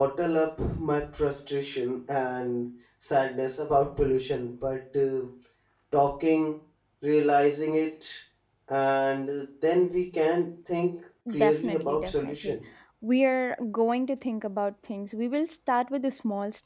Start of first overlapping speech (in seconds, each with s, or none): 11.3 s